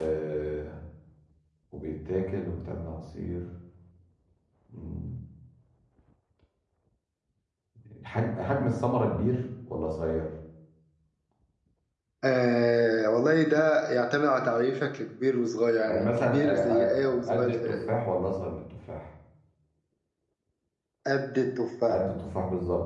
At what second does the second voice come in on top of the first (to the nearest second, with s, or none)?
16 s